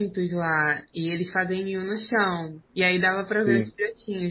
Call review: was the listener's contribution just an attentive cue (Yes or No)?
Yes